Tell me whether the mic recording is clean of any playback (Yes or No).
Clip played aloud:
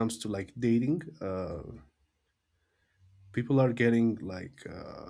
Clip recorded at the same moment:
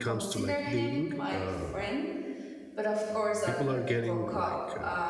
No